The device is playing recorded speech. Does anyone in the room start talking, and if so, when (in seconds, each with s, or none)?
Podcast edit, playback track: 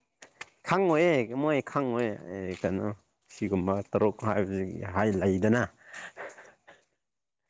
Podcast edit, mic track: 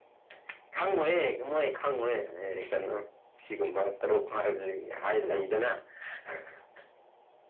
none